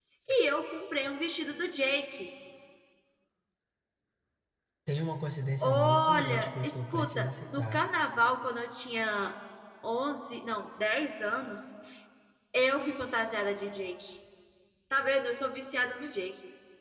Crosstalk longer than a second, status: present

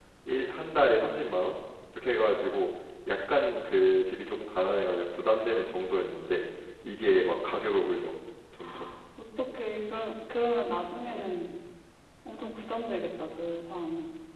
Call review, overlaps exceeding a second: none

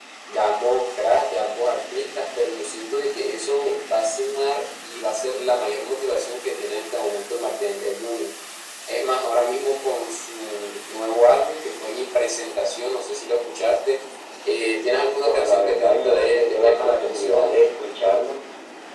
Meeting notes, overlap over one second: present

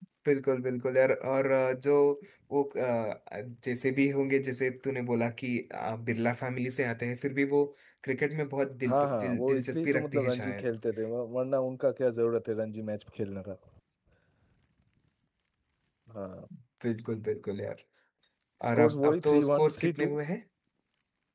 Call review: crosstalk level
present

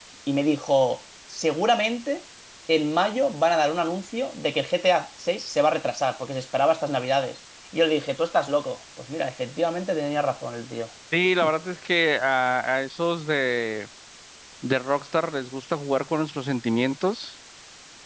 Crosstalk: none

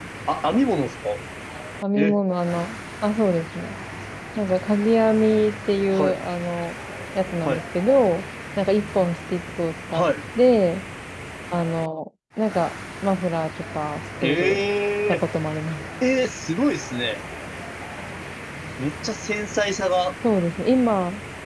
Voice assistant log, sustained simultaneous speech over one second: none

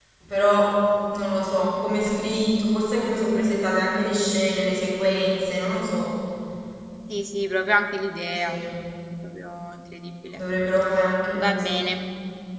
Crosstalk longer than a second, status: none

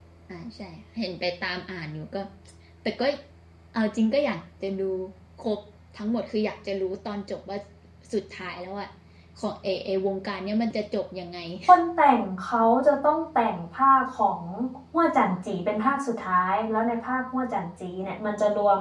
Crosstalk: none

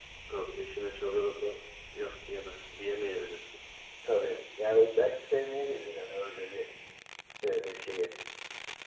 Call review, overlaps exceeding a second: none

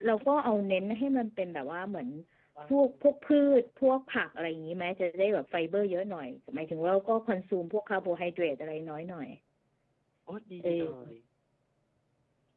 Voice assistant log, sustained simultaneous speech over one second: none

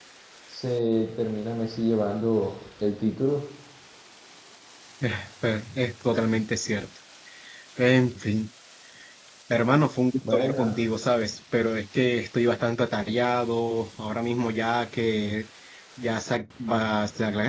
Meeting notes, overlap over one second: none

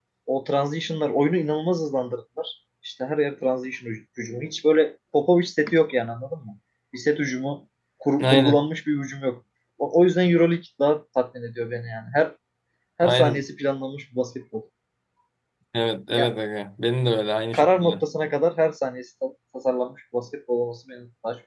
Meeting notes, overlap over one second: none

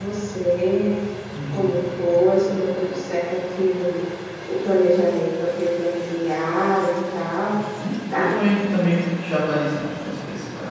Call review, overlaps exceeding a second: none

